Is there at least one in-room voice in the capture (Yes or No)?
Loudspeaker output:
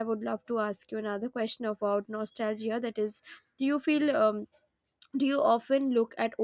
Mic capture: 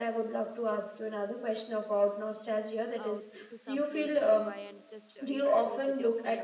Yes